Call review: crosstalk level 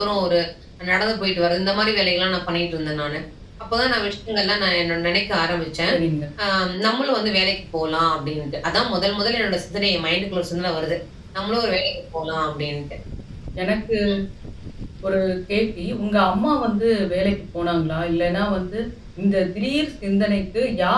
none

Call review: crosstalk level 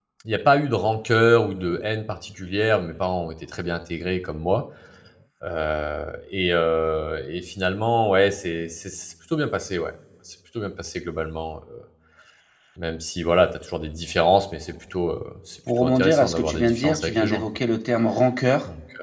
present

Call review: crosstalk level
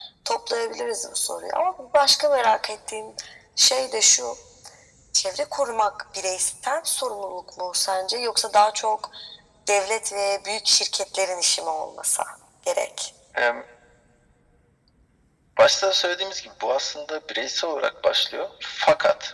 none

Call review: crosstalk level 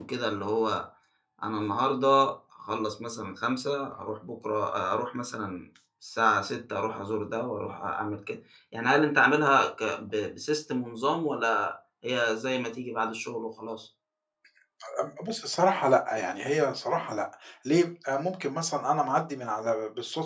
none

